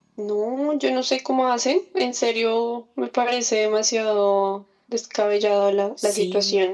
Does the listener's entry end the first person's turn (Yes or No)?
Yes